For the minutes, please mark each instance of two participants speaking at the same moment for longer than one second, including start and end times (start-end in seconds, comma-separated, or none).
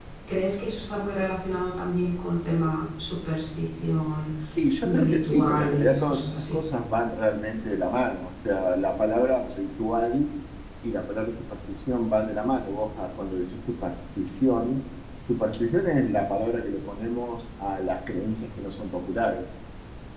4.8-6.6